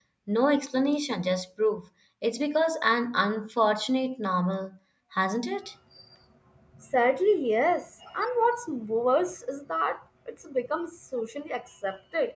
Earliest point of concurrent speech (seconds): none

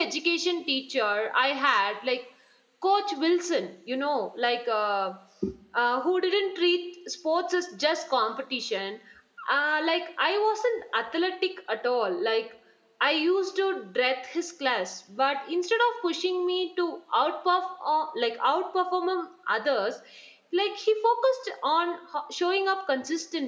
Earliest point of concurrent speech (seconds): none

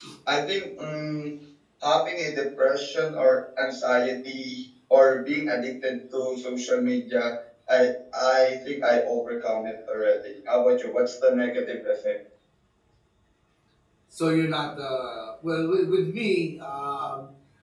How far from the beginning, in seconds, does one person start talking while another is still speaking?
none

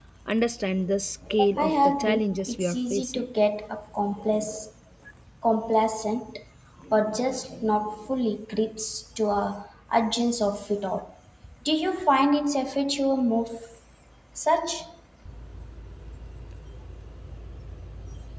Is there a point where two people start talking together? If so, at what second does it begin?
2 s

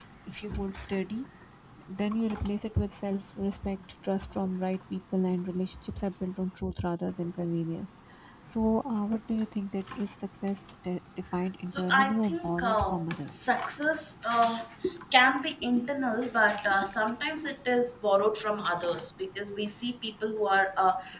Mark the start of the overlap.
12 s

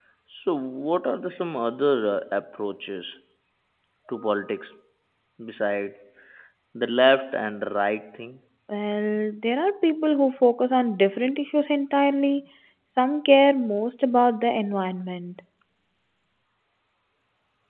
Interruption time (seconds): none

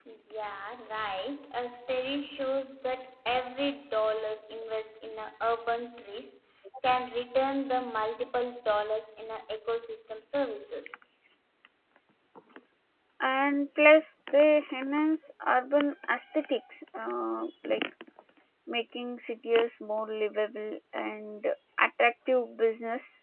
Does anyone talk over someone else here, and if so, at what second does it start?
none

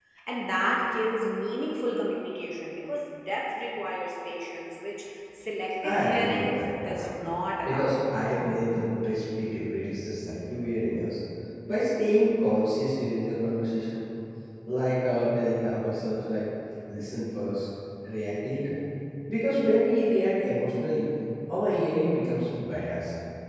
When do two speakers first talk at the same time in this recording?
6 s

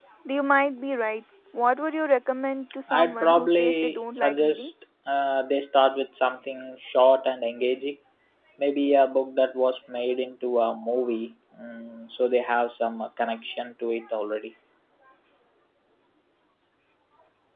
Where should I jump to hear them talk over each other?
3 s

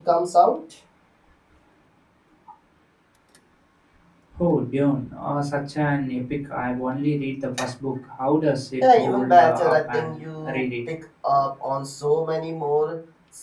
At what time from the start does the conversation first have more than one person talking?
9 s

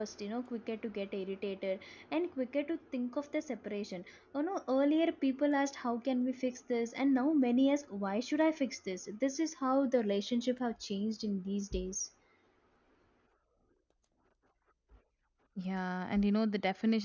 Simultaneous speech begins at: none

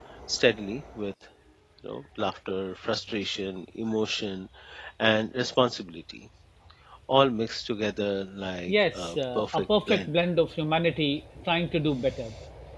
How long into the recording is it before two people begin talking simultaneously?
9 s

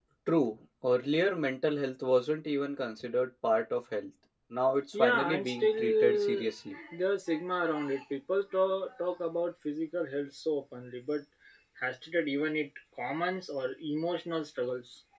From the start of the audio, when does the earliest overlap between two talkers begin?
5 s

